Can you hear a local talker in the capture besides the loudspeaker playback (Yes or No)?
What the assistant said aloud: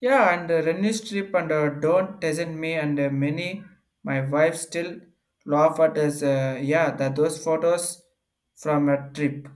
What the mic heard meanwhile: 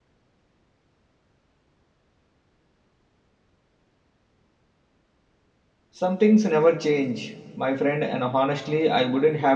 Yes